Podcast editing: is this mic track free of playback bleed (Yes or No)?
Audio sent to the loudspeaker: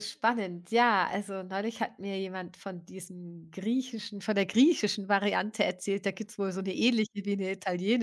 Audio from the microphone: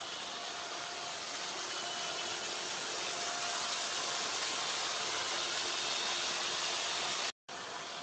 Yes